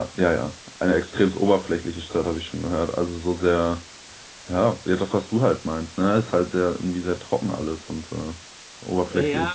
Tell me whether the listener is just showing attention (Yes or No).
No